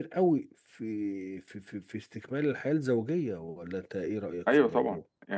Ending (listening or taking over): taking over